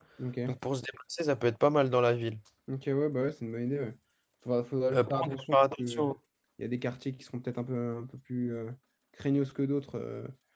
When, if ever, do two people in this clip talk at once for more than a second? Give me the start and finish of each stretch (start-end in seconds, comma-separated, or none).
4.9-6.1